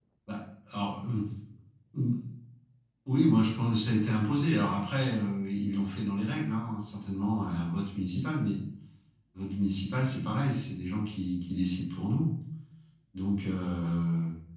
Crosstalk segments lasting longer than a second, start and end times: none

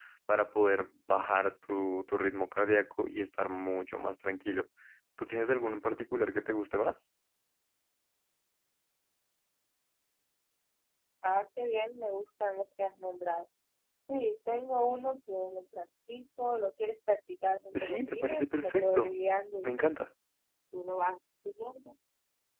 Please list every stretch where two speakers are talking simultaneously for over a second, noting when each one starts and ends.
17.7-19.1

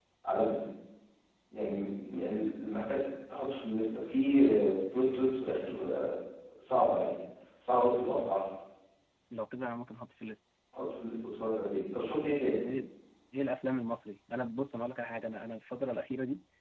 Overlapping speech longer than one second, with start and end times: none

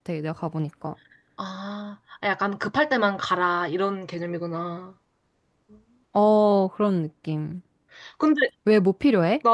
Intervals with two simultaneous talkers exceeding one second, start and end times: none

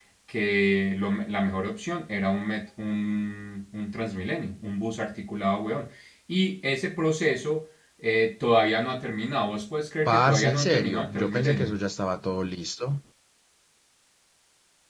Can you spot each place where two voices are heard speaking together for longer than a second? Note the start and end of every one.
10.1-11.8

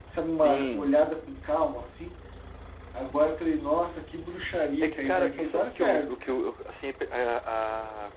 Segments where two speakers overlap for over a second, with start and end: 4.8-6.4

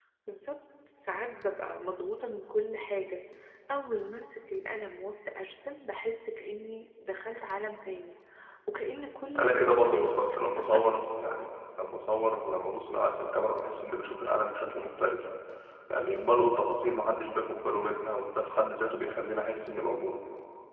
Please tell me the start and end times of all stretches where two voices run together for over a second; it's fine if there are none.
9.4-11.0

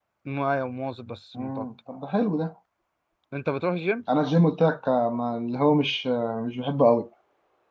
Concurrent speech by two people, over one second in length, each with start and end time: none

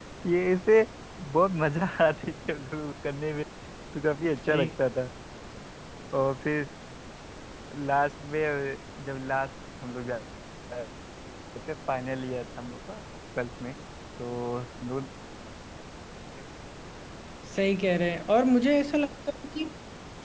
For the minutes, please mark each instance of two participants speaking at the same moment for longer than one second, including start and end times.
none

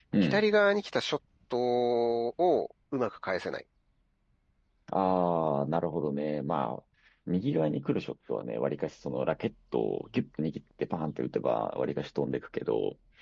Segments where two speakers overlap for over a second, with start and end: none

